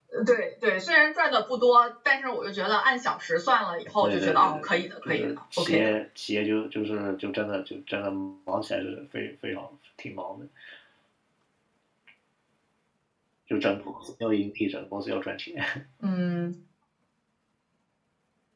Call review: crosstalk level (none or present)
present